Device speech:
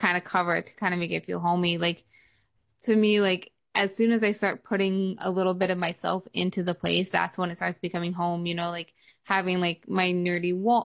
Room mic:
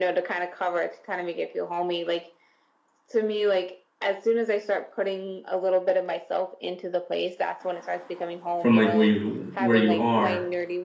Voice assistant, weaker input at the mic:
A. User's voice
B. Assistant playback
B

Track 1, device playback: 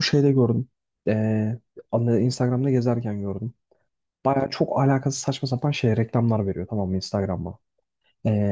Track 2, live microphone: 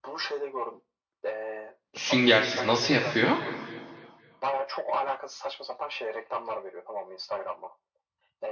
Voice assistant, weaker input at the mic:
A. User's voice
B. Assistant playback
B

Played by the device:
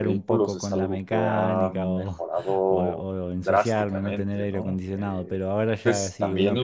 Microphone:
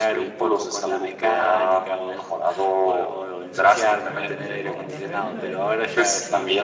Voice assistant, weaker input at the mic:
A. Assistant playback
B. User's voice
B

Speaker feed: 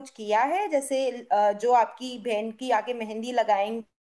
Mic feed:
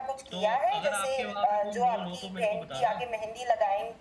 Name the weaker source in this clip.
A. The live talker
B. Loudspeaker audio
A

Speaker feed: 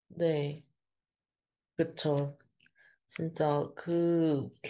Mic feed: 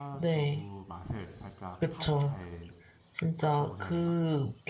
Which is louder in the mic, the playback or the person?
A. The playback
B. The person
A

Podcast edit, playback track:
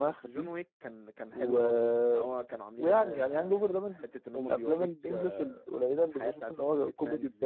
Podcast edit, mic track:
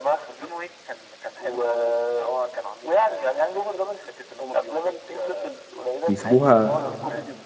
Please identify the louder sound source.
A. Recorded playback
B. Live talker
B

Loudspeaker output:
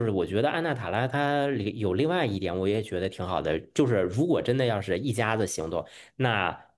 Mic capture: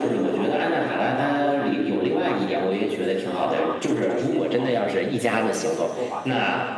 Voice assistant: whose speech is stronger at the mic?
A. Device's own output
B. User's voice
A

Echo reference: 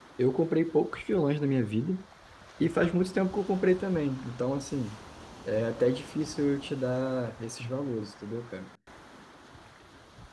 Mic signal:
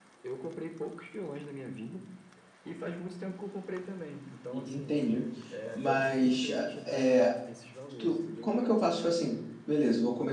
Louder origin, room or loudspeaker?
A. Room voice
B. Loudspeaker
A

